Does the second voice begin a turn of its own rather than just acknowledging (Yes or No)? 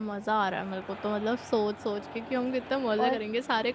No